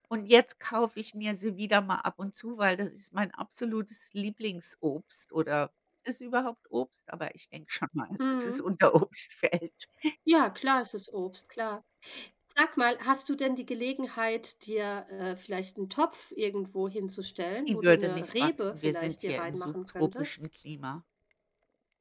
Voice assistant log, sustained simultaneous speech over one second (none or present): present